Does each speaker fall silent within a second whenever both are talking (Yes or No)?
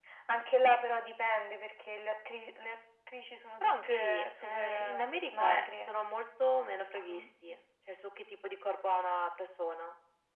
No